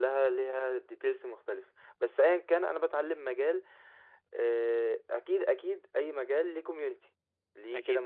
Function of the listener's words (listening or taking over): listening